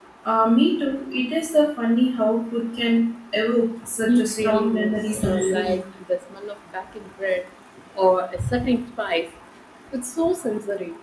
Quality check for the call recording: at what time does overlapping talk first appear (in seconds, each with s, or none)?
4.0 s